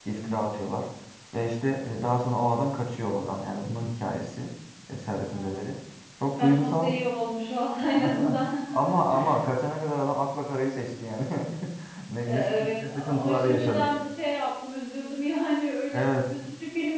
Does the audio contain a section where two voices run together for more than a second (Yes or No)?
Yes